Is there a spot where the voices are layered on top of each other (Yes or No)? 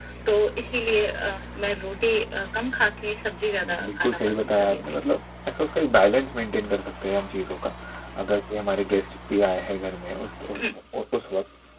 Yes